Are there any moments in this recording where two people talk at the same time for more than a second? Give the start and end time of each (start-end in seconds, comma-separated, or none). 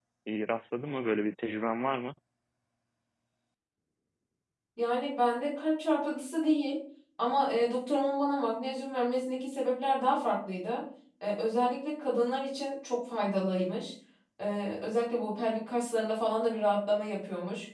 none